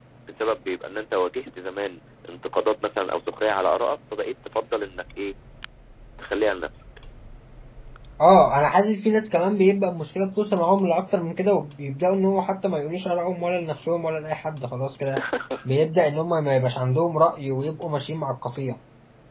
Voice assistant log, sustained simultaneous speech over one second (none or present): none